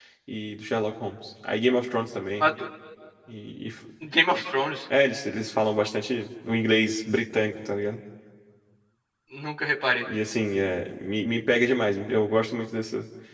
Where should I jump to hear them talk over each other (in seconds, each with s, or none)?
none